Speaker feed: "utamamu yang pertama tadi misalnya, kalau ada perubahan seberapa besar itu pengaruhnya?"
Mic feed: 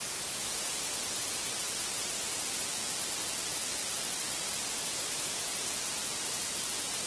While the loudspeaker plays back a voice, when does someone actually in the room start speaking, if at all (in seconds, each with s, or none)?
none